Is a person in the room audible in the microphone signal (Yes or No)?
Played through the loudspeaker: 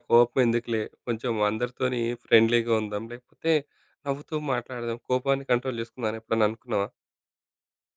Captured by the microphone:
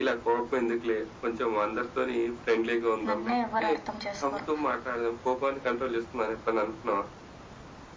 Yes